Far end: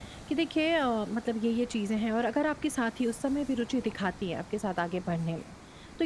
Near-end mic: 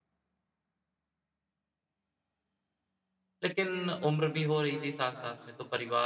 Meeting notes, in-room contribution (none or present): present